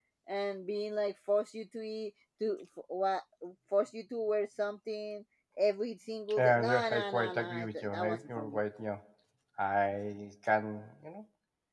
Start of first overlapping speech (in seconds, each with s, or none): 6.3 s